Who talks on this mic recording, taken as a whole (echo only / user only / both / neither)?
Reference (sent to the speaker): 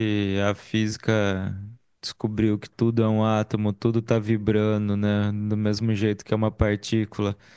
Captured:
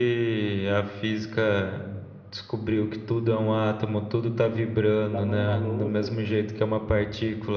both